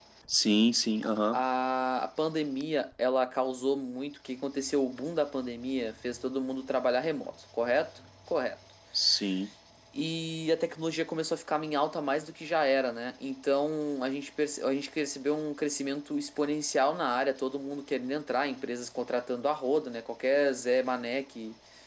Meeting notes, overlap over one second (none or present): none